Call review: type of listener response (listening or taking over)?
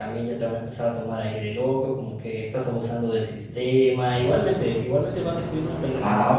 taking over